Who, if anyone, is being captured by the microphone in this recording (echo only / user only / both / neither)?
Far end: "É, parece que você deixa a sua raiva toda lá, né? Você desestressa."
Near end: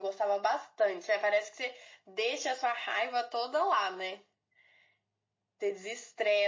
echo only